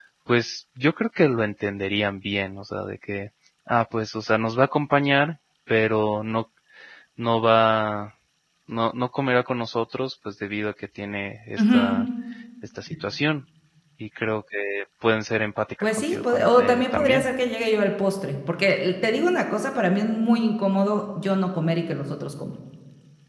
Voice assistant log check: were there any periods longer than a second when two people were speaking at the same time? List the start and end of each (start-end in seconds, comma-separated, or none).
15.8-17.3